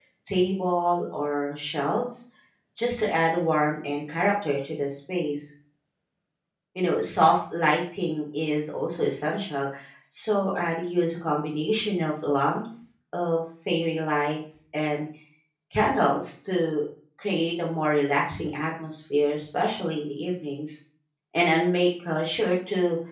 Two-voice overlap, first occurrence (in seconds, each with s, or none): none